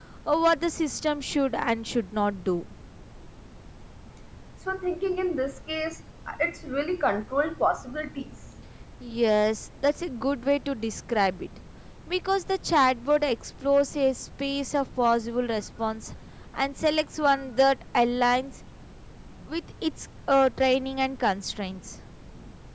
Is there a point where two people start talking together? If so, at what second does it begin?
none

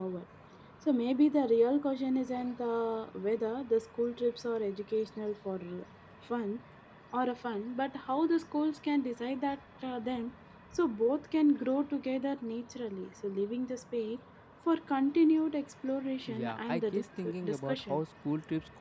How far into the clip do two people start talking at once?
16.3 s

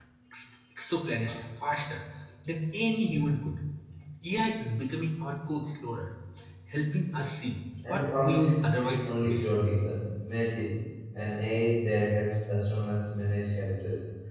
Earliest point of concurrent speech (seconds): 7.8 s

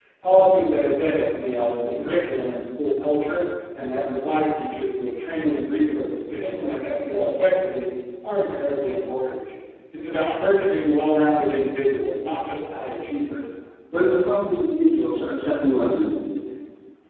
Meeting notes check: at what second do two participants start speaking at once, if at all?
none

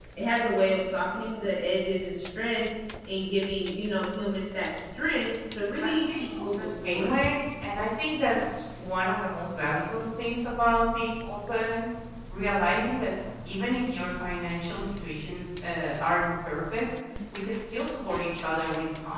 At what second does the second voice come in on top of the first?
5.8 s

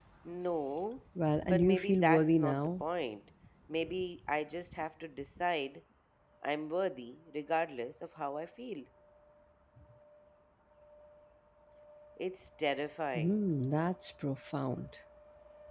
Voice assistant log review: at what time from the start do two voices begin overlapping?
1.5 s

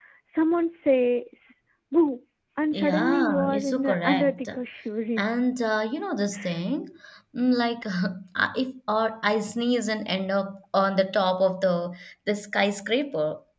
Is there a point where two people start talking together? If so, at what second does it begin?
2.7 s

